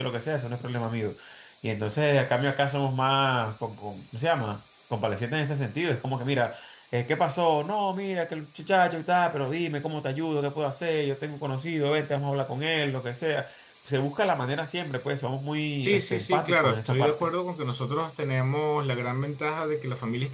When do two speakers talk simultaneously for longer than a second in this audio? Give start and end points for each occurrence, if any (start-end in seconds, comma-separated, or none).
15.8-17.3